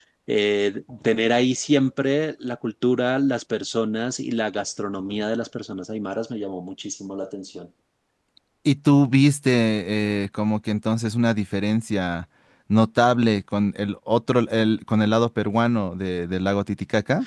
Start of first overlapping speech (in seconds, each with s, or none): none